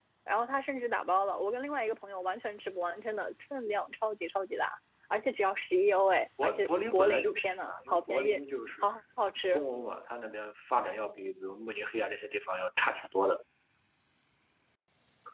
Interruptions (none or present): present